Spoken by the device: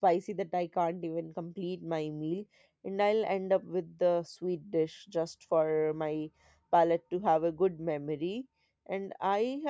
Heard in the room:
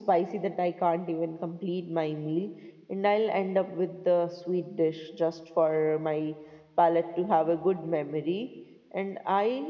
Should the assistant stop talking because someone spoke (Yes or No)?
No